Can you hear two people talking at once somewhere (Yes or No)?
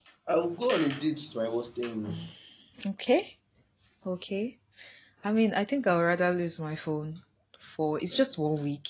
No